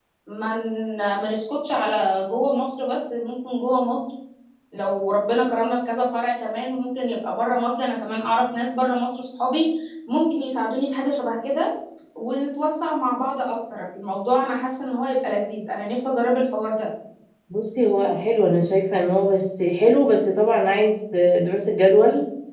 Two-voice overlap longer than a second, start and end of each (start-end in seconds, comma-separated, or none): none